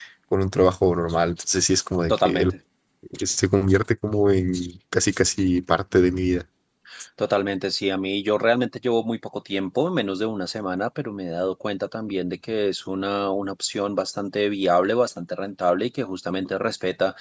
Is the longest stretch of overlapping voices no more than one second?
Yes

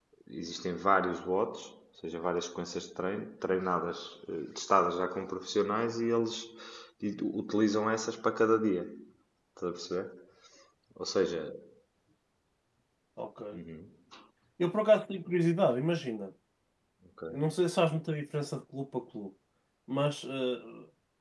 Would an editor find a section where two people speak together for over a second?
No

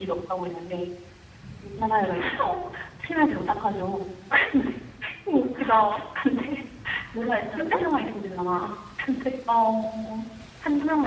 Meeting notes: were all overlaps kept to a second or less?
Yes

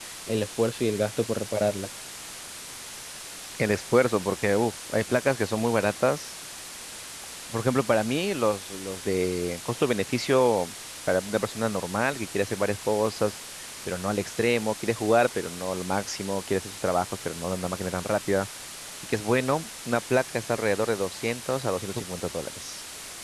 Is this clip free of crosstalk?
Yes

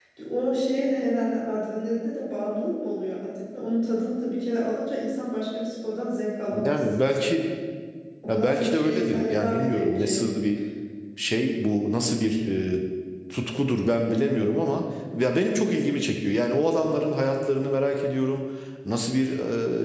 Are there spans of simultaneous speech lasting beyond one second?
Yes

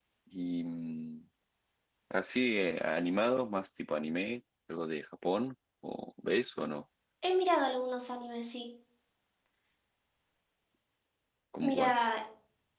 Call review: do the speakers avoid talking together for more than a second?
Yes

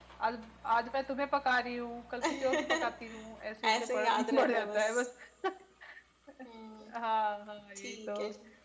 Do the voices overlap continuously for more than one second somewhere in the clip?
Yes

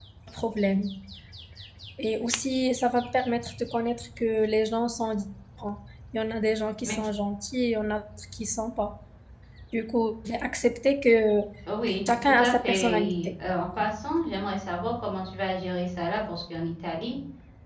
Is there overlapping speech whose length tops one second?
Yes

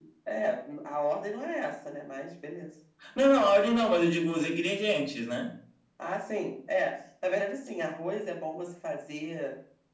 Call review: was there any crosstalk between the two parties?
No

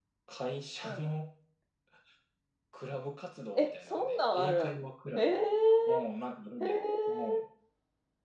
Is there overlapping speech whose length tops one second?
Yes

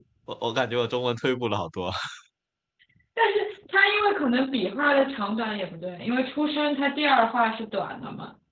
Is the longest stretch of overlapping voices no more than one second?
Yes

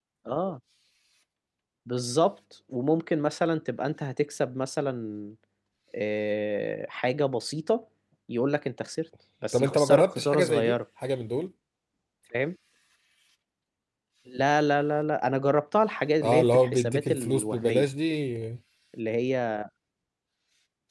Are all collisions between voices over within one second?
No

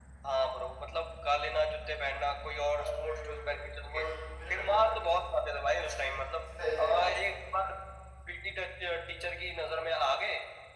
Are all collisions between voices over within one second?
No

